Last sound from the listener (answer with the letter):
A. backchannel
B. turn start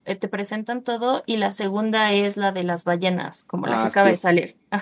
B